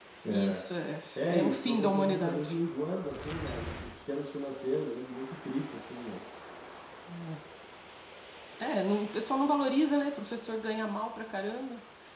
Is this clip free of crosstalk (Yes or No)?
No